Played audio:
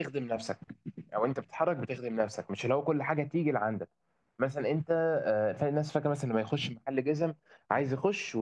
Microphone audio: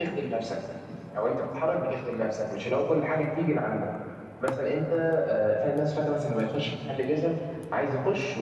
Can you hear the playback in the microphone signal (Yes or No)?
Yes